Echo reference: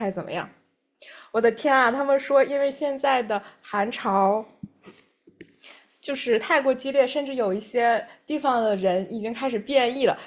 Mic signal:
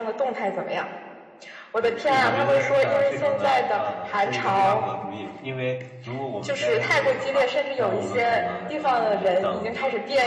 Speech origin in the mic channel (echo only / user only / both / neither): both